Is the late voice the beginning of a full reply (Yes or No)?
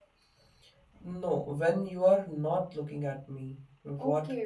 Yes